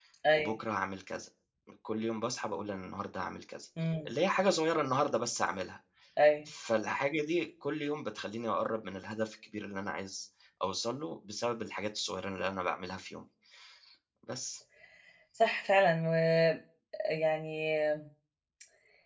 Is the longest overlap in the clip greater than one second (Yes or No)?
No